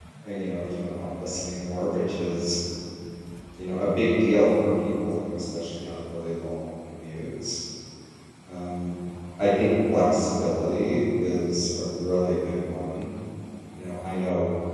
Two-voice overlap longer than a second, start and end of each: none

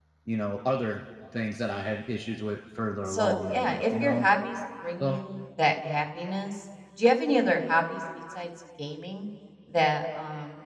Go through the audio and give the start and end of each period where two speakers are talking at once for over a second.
3.1-4.3

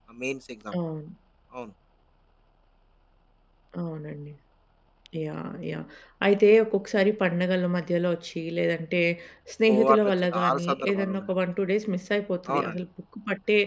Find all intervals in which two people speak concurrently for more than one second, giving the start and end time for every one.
9.7-11.3

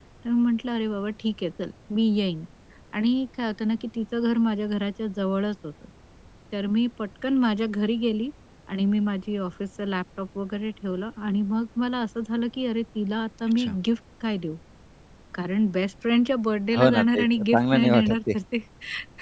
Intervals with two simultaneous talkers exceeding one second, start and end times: 16.8-18.2

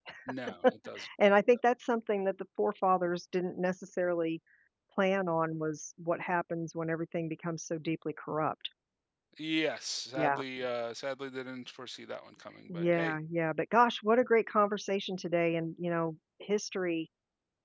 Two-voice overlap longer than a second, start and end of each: none

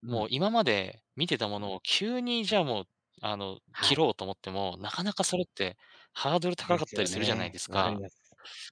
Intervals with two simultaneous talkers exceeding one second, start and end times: 6.6-8.0

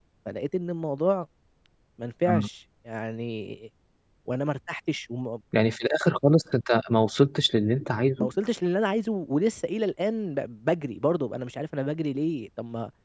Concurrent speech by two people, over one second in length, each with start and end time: none

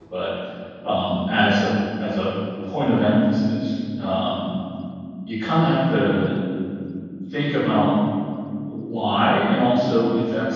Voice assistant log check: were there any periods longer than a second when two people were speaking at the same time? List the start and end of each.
none

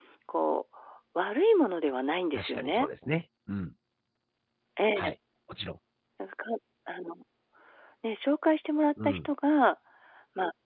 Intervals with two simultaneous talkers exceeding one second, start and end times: none

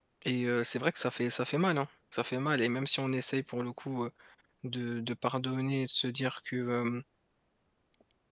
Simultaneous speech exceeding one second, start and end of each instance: none

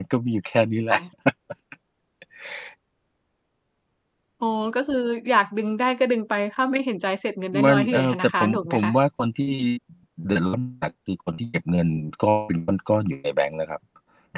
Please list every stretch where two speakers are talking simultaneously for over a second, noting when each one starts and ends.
7.6-8.9

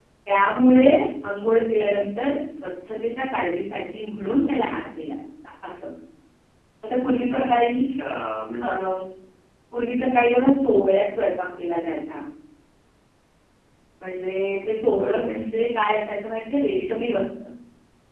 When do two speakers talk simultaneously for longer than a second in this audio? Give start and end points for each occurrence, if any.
none

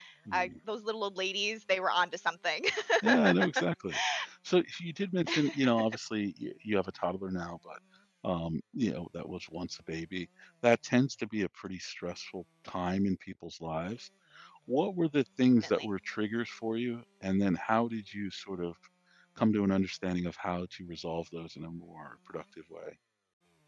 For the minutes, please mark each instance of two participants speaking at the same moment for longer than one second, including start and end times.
none

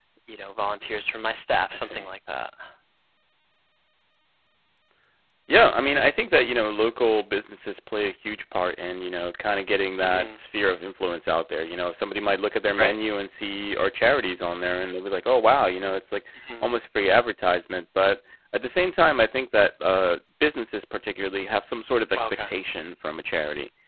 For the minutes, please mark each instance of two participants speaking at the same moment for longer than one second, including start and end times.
none

